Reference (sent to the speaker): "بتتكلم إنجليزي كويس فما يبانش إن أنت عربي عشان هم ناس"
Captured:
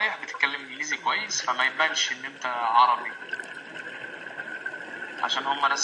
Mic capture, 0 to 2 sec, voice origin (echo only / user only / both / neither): echo only